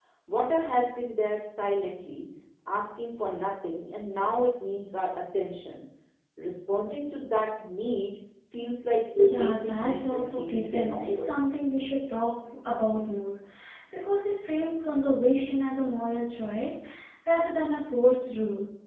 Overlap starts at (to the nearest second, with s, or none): 9 s